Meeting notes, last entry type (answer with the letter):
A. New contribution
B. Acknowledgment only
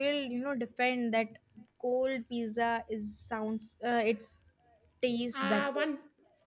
A